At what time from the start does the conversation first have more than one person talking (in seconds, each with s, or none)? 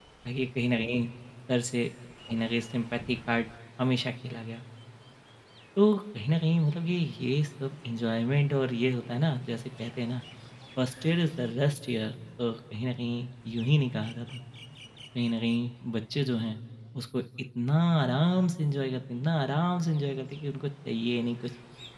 none